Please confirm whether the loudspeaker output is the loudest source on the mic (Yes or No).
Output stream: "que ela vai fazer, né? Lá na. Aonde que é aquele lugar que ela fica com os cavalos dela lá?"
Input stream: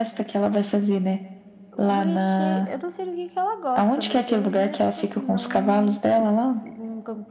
Yes